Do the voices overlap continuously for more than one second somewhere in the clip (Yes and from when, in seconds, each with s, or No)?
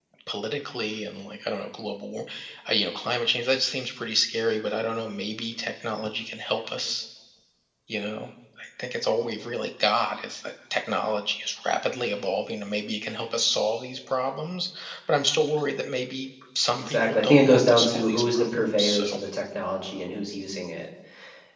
Yes, from 16.8 s